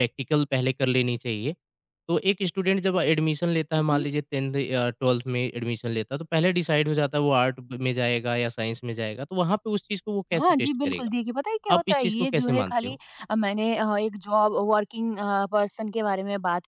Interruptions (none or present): present